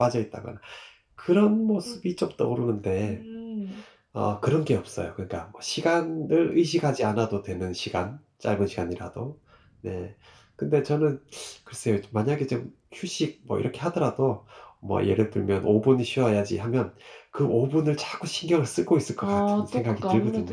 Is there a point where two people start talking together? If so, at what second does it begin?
19 s

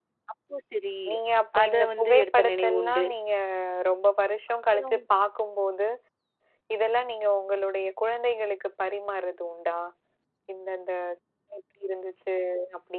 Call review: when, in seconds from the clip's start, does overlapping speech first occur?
2 s

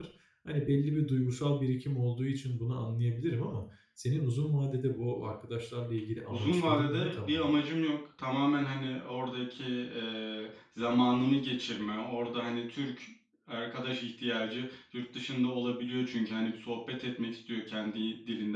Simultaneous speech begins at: 6 s

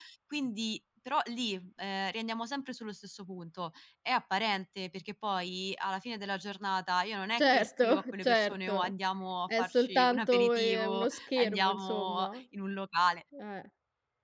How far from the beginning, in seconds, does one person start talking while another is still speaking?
7 s

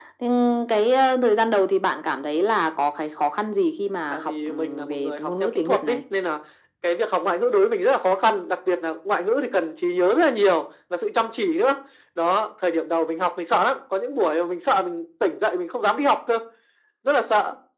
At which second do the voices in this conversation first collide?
4 s

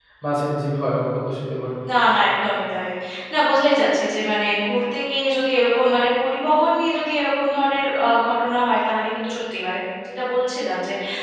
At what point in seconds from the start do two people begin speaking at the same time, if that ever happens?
none

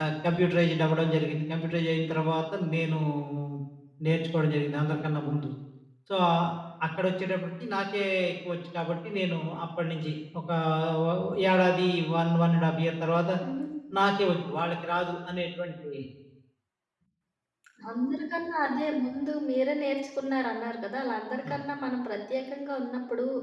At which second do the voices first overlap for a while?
none

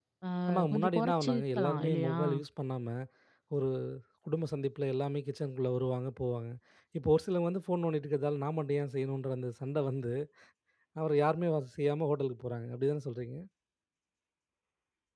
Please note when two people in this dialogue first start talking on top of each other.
1 s

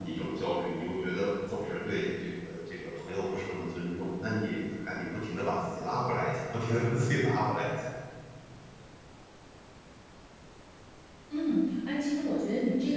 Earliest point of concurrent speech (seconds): none

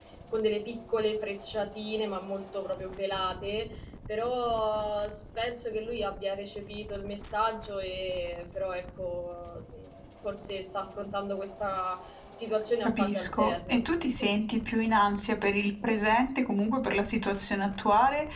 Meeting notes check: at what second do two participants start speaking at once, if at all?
13 s

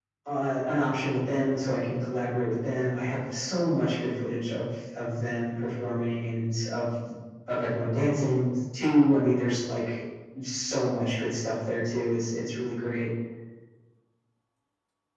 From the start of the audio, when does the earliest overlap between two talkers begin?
none

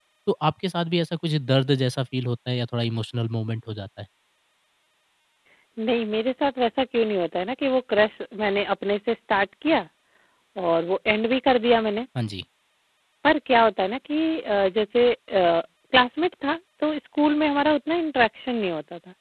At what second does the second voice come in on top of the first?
none

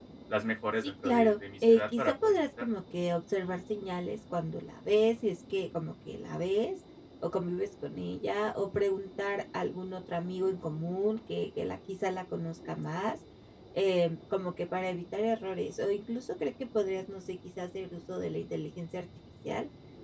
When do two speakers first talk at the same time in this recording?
1 s

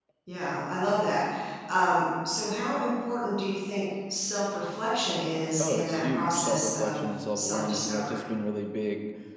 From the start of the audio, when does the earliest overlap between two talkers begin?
6 s

